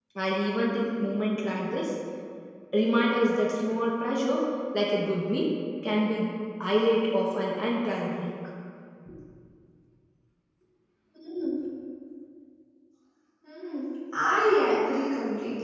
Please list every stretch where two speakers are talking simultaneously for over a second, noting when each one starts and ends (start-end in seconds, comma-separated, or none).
none